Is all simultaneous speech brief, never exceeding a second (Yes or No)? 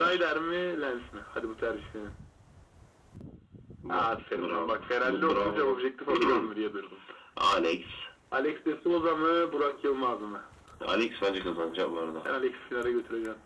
No